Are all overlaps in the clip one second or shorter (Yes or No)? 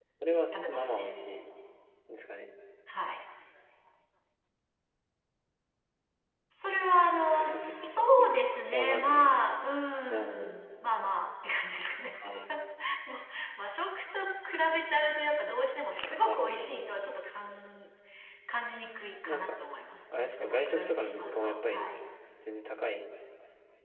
No